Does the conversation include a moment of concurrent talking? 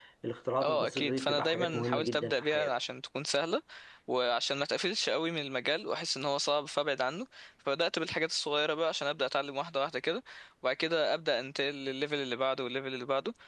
Yes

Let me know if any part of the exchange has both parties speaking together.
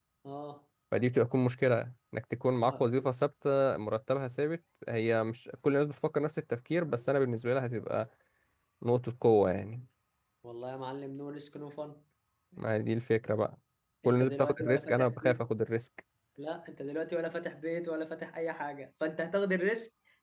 Yes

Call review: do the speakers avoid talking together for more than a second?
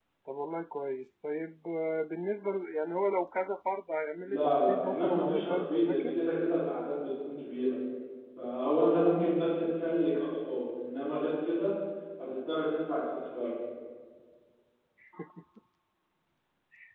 No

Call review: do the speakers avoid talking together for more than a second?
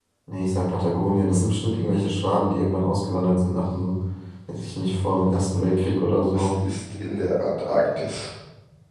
Yes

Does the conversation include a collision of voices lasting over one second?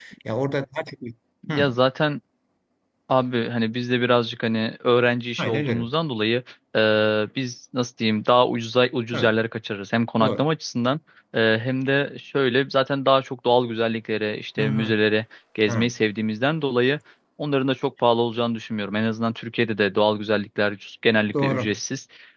No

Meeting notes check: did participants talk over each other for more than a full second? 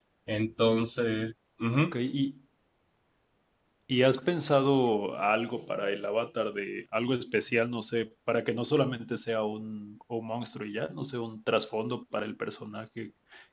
No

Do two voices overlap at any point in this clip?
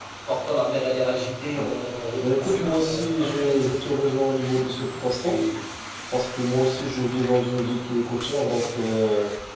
Yes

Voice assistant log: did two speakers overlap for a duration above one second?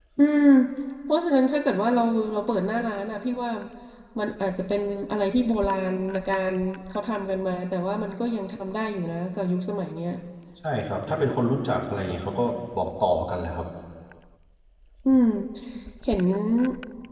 No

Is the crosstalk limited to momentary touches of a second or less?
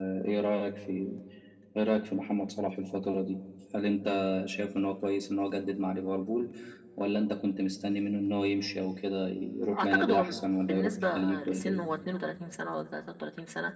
No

